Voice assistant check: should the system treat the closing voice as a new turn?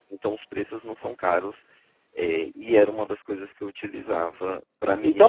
Yes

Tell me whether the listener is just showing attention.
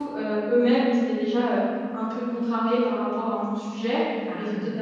Yes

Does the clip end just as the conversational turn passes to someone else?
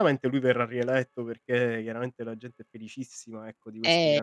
No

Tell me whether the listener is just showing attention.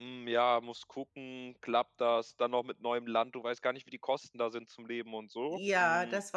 No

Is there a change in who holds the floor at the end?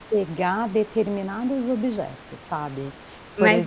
Yes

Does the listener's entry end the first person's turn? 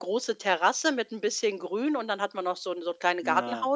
No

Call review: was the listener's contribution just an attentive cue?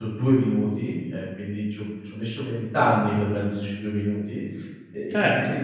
Yes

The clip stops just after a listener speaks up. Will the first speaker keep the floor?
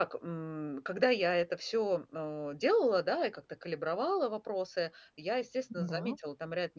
Yes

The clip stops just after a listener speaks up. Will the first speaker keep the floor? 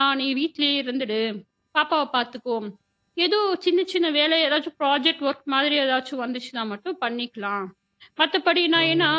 Yes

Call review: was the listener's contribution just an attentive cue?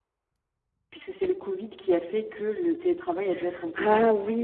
No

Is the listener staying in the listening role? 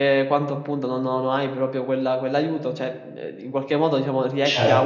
No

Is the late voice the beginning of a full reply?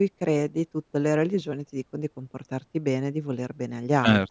Yes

